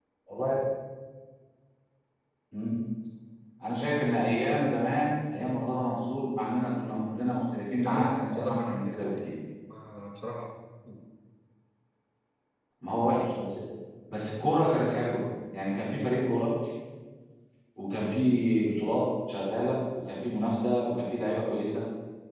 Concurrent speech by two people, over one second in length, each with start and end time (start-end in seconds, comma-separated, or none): 7.8-9.1